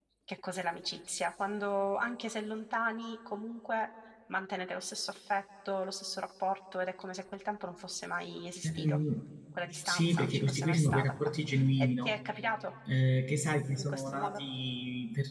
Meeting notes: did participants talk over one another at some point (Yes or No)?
Yes